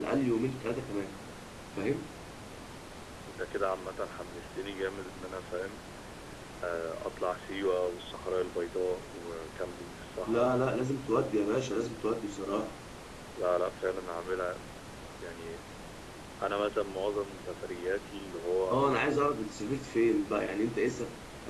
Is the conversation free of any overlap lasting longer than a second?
Yes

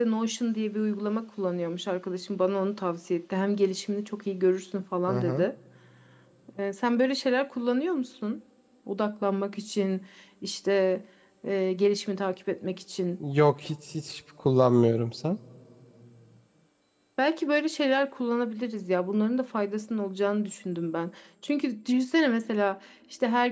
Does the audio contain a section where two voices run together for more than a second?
No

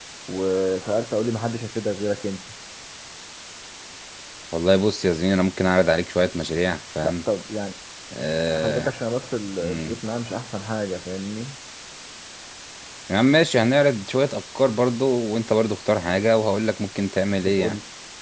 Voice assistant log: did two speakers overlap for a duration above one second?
No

